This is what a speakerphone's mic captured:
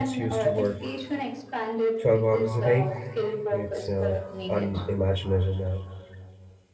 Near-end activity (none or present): present